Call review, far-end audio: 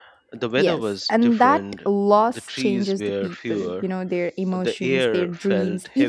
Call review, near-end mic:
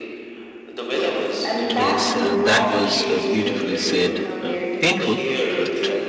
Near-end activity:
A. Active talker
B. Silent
A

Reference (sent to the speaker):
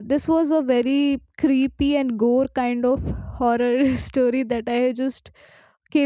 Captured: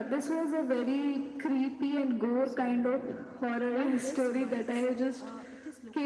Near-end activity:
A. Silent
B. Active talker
B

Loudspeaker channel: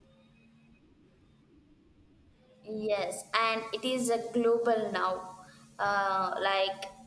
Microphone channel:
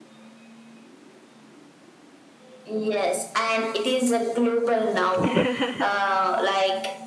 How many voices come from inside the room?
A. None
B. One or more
B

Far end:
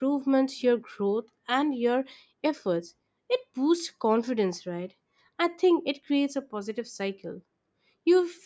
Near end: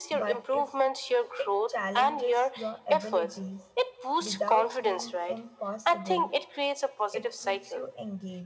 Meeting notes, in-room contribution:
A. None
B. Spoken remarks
B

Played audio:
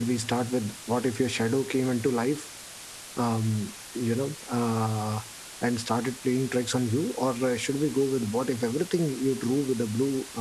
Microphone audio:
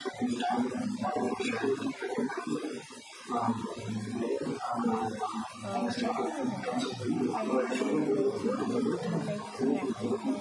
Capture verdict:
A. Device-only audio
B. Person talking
B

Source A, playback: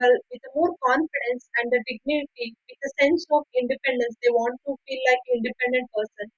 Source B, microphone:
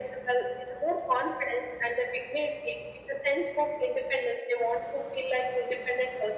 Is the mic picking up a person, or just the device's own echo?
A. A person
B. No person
B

